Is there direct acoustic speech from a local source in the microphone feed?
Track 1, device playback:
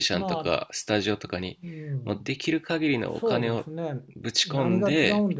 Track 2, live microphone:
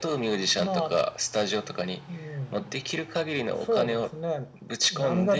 No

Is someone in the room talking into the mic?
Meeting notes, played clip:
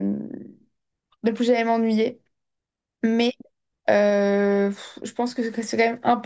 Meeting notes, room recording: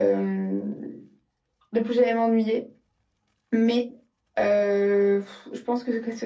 No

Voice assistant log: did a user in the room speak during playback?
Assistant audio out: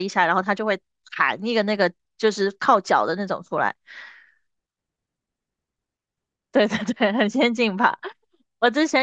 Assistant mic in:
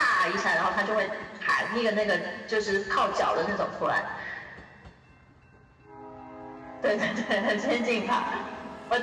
No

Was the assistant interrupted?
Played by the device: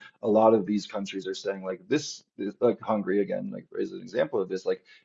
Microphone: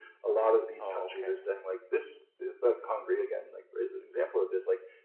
Yes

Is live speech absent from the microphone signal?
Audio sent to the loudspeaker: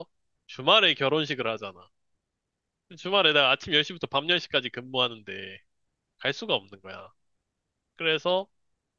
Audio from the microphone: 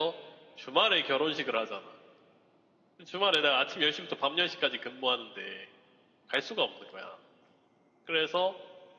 Yes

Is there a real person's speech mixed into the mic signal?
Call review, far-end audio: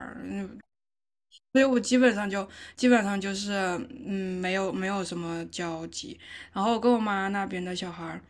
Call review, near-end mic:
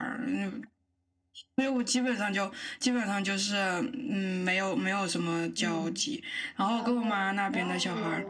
Yes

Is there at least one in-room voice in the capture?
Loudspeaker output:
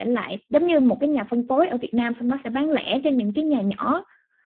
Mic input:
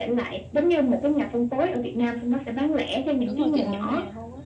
Yes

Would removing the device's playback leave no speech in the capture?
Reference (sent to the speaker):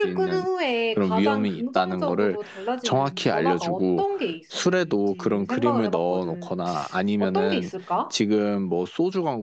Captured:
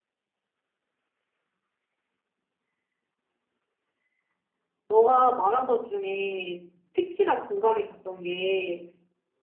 No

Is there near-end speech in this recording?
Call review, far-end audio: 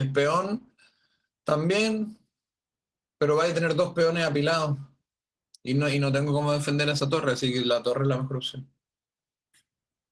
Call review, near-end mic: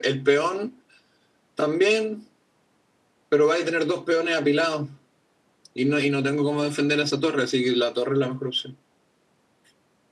No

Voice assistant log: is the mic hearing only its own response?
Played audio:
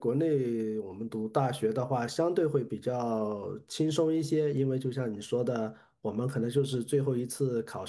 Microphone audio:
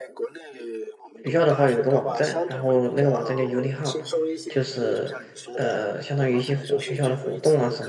No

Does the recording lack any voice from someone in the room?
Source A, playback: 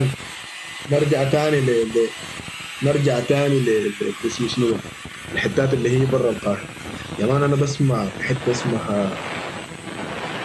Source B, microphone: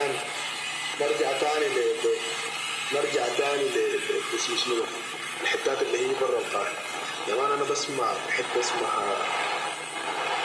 Yes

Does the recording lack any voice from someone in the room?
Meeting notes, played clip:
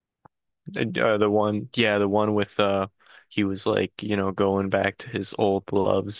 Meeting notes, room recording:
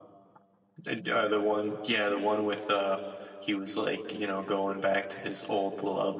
Yes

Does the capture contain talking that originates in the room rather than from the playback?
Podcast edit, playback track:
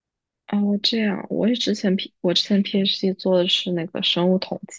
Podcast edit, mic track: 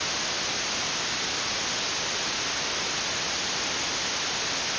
No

